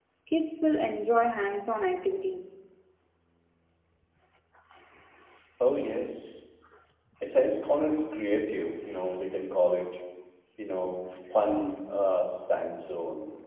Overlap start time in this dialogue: none

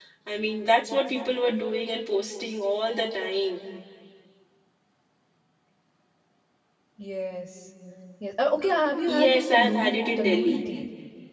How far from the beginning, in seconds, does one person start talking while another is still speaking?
9 s

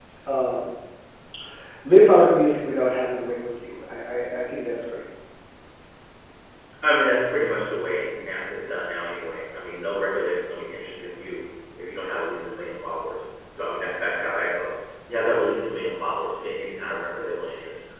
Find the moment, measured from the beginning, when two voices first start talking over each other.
none

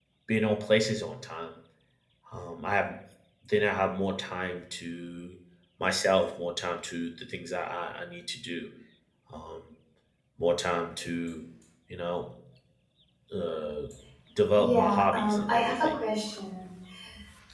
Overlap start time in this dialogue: 15 s

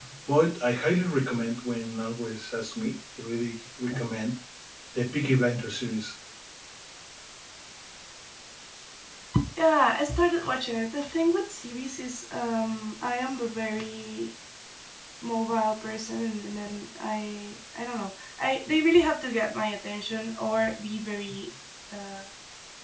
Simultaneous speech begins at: none

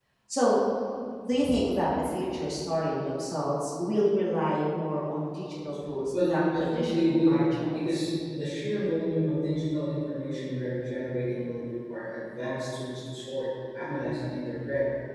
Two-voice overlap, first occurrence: 6 s

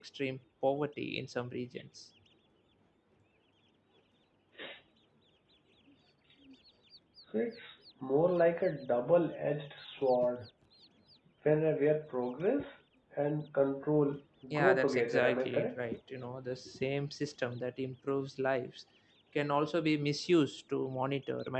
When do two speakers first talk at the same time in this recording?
15 s

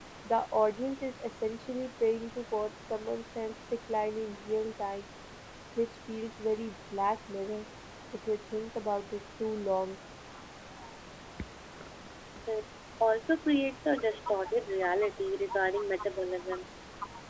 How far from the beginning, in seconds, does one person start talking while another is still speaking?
none

